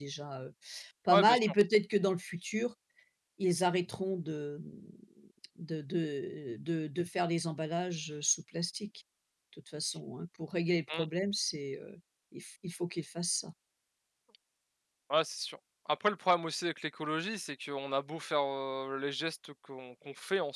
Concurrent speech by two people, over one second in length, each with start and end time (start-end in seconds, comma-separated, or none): none